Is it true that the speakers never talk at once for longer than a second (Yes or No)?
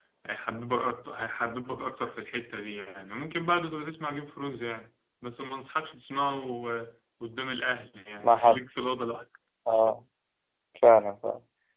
Yes